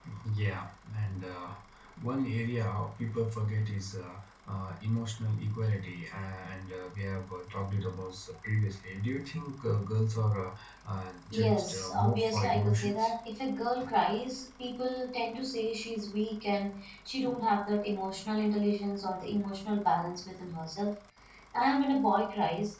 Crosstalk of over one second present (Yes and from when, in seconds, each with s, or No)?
Yes, from 11.3 s